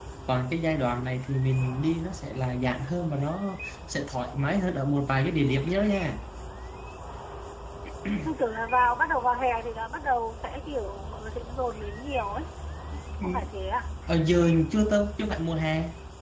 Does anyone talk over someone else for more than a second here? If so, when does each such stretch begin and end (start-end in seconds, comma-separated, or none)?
none